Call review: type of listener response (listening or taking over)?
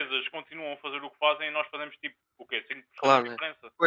taking over